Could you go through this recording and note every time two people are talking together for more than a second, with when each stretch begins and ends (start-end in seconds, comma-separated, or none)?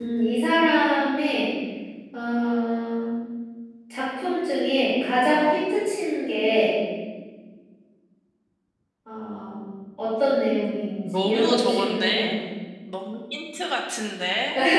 11.0-12.4